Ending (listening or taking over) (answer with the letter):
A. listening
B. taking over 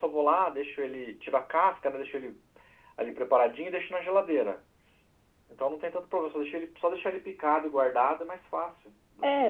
B